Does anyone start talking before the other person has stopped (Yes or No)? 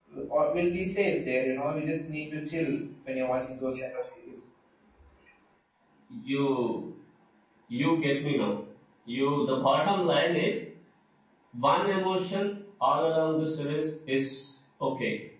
No